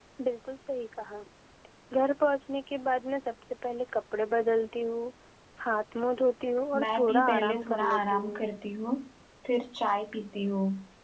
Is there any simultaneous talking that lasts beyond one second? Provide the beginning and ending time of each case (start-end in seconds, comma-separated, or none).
6.8-8.4